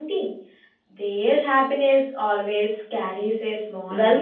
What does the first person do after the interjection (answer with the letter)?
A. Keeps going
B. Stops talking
B